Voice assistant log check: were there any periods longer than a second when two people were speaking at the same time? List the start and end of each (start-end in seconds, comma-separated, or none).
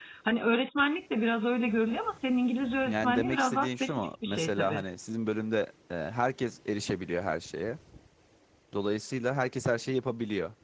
2.9-4.8